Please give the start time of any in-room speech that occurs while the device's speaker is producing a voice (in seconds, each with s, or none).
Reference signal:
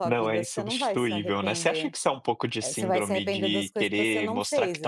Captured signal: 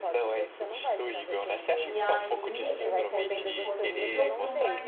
1.8 s